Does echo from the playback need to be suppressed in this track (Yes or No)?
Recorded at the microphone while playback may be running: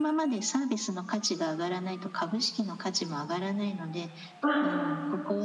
Yes